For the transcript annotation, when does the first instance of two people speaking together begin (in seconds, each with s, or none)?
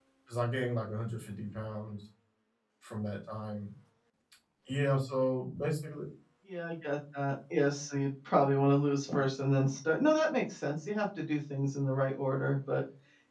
none